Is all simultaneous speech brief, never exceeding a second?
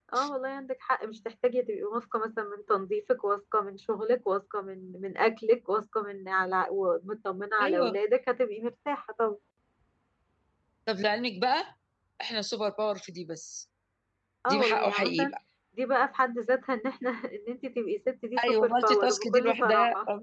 No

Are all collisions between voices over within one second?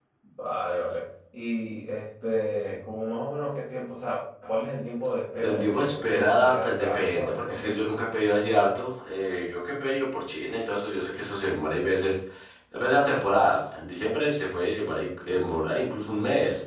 No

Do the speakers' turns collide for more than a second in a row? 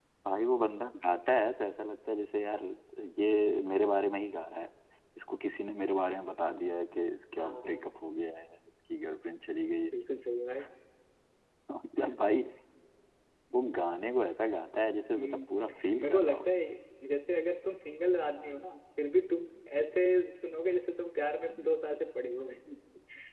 No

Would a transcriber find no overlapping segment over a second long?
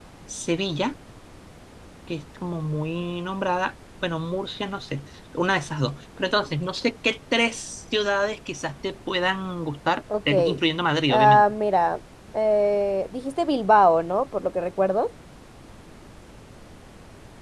Yes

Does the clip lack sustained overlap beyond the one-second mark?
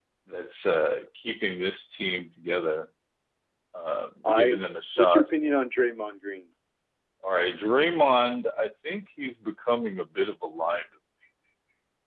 Yes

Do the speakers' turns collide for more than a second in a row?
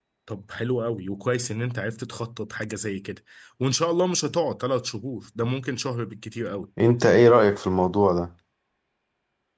No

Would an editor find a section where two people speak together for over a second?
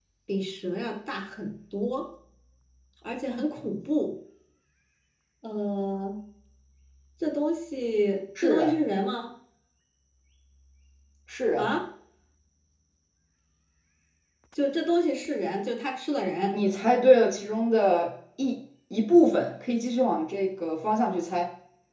No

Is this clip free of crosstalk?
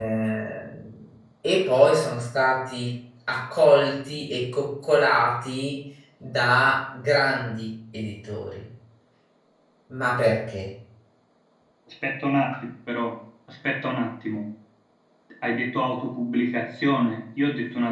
Yes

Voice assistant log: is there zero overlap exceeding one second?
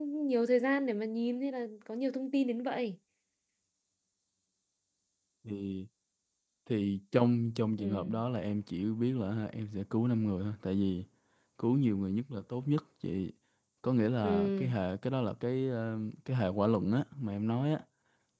Yes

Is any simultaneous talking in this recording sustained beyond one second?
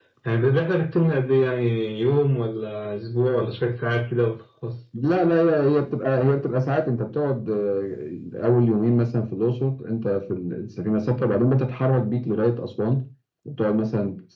No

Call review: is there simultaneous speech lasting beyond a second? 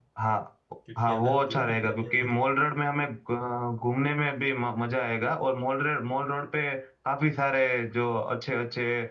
Yes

